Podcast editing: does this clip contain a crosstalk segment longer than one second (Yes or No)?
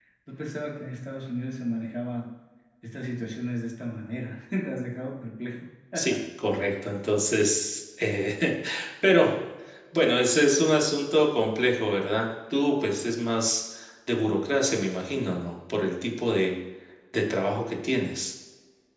No